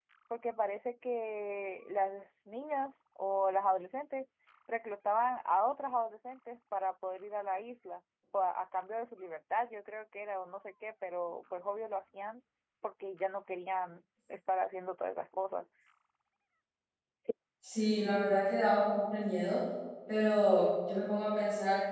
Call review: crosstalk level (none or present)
none